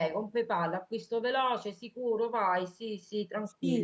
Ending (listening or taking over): taking over